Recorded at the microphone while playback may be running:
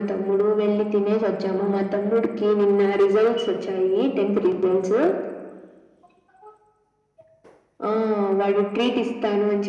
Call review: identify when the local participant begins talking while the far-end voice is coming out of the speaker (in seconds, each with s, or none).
none